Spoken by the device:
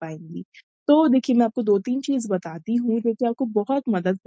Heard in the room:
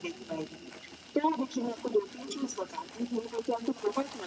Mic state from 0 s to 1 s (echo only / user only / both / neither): echo only